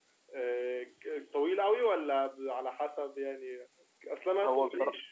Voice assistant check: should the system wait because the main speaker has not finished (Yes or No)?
Yes